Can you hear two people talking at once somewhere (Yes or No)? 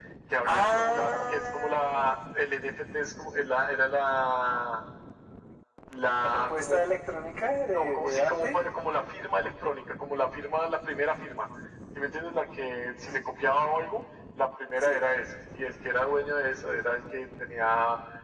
Yes